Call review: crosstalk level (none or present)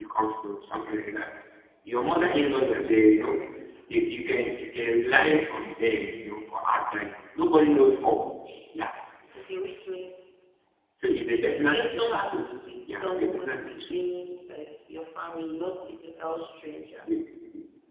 present